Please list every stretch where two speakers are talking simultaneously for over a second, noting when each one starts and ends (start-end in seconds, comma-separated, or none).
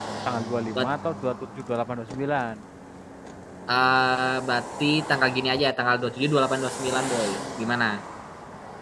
none